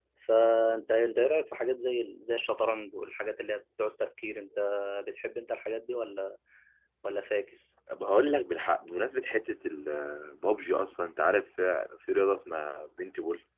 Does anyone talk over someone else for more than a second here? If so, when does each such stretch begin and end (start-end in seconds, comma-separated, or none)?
none